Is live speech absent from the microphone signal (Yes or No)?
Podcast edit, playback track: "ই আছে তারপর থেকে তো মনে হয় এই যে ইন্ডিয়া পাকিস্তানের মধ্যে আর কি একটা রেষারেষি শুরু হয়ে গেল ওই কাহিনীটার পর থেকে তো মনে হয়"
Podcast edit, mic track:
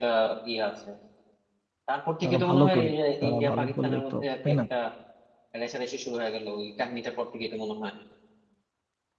No